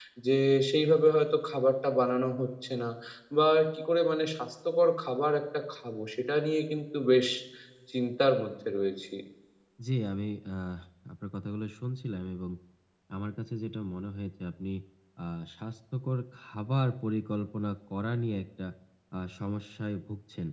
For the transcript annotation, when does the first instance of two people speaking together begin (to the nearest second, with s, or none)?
none